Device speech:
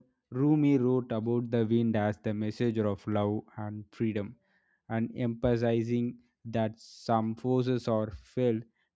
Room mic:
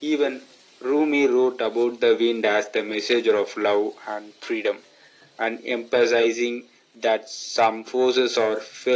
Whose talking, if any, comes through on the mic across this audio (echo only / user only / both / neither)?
echo only